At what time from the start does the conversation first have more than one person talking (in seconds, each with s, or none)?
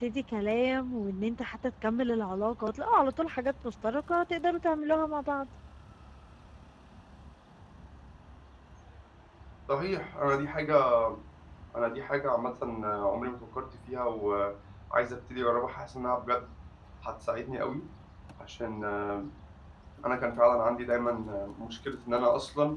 none